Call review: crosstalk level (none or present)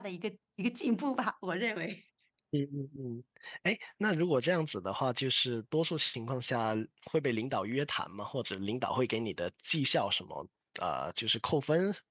none